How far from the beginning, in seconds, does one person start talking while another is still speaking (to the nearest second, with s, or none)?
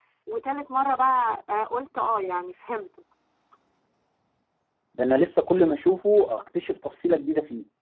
none